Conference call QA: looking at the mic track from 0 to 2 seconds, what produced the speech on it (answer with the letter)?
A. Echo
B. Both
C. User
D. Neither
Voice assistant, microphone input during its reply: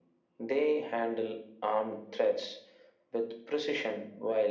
A